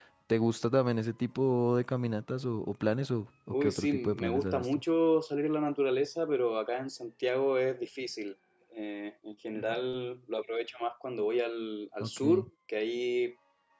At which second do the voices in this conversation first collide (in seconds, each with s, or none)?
3.6 s